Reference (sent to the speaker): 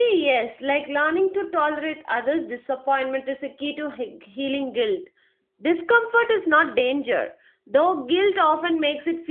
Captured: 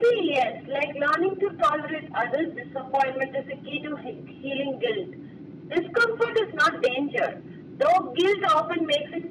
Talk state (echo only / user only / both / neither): echo only